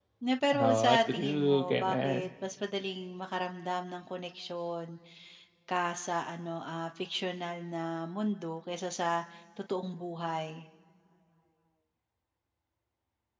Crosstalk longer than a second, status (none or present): present